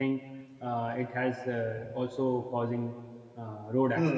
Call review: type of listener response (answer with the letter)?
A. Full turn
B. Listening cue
A